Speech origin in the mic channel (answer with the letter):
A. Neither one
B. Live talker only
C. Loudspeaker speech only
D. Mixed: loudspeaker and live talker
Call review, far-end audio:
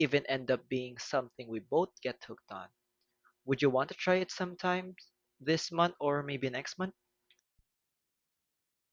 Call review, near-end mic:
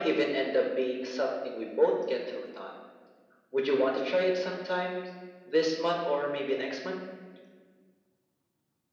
C